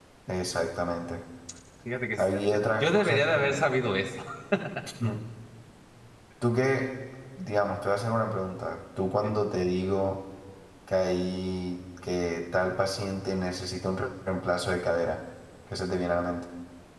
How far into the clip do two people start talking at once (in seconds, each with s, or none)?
2.2 s